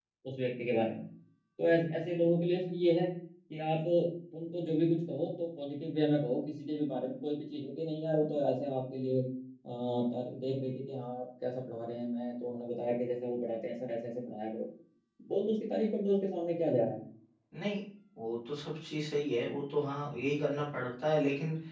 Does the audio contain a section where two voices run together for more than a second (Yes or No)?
No